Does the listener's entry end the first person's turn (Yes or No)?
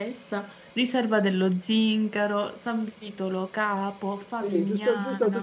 Yes